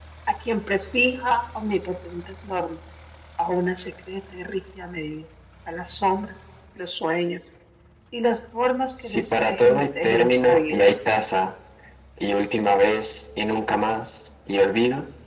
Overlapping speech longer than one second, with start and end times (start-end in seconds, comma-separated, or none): 9.0-10.8